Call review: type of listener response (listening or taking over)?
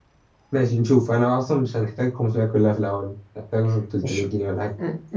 taking over